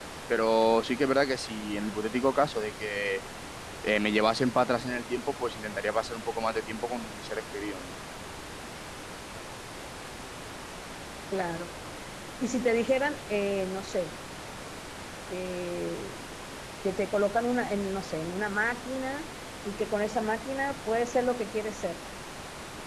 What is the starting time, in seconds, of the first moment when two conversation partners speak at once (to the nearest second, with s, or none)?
none